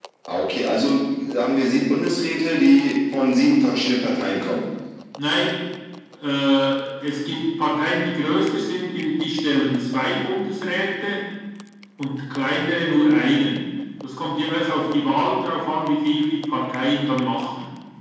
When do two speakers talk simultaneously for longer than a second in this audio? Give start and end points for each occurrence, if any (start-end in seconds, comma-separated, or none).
none